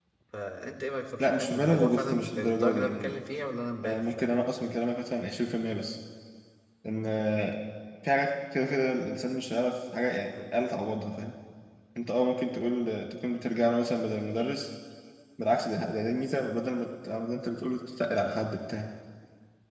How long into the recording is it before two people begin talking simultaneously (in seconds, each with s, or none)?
1.2 s